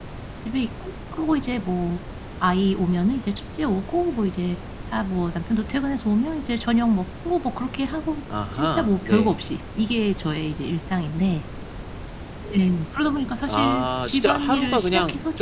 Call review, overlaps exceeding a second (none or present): present